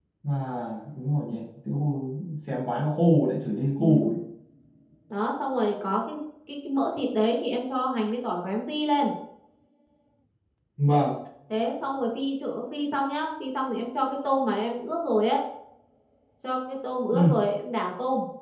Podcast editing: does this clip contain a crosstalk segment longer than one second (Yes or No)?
No